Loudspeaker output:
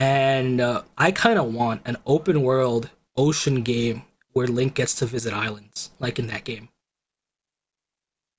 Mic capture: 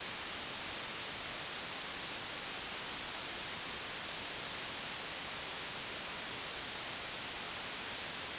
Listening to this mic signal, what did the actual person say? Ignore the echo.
none

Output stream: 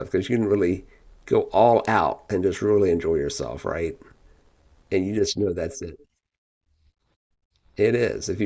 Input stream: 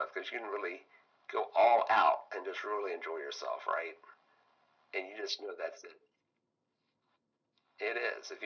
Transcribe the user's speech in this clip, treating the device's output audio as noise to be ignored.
none

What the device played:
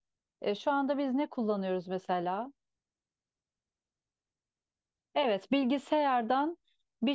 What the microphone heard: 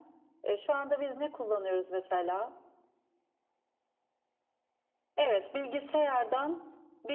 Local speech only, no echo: none

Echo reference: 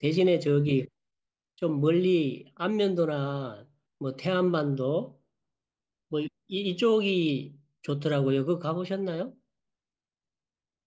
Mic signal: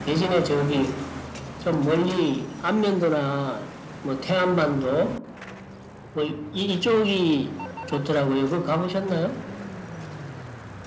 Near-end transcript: none

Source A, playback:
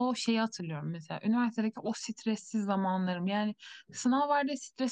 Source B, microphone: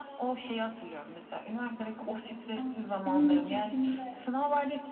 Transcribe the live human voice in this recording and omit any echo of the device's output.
Aa, benim de cildimde.

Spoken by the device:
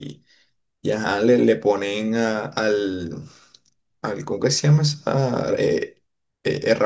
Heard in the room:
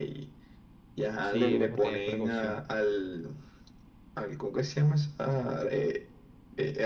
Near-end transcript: Sí, es mejor tener precaución.

